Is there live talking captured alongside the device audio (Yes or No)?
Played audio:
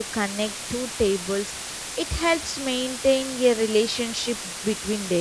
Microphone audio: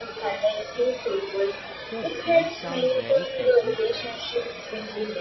Yes